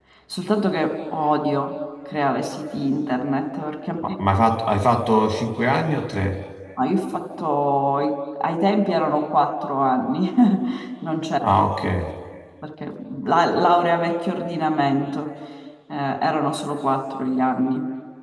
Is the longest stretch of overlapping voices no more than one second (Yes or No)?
Yes